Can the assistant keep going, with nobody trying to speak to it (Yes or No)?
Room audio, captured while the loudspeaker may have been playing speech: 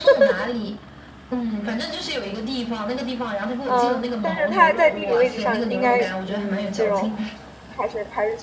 No